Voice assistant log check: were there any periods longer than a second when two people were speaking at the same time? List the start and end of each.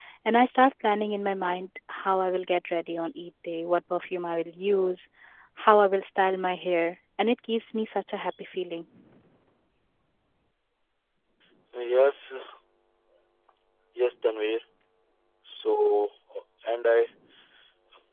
none

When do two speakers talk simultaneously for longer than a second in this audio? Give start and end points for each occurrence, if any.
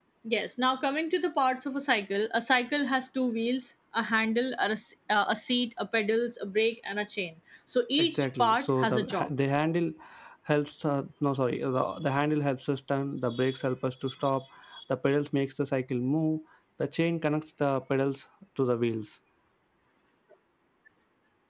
8.0-9.3

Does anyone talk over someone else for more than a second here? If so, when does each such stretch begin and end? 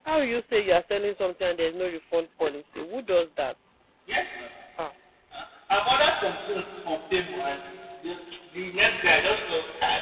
none

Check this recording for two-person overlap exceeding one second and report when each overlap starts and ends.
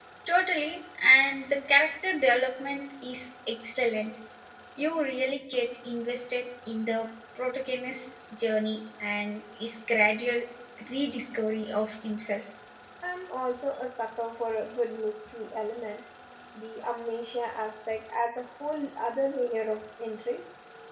none

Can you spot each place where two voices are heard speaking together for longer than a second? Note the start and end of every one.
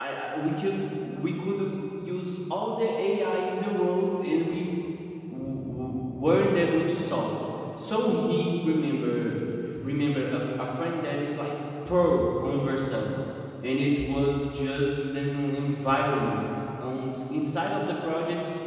none

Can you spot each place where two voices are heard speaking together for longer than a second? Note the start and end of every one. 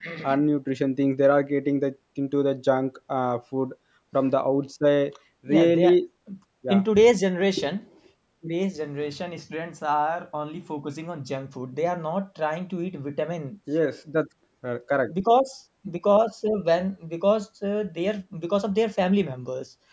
none

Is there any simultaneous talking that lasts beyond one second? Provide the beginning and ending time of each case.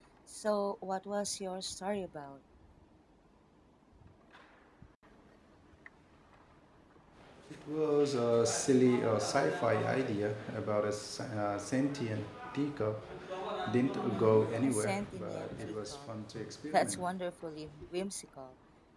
13.9-16.1

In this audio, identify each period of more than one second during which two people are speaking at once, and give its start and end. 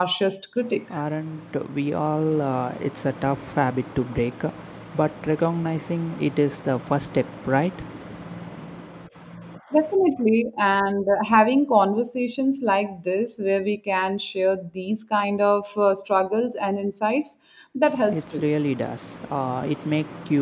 none

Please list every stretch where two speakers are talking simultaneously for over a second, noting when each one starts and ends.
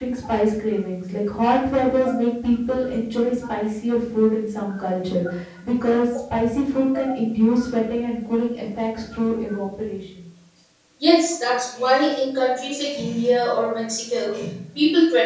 none

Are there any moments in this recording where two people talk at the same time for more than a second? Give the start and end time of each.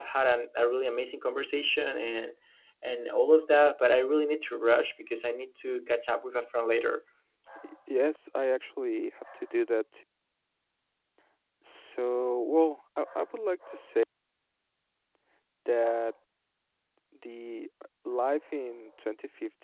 none

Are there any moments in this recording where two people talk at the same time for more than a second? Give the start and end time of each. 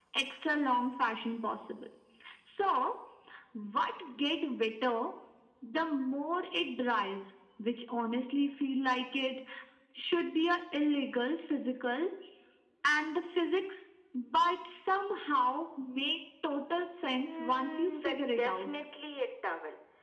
17.3-18.8

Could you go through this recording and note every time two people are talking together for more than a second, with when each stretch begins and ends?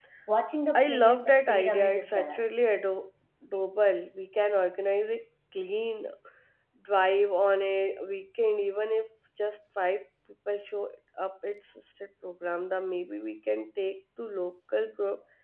0.8-2.4

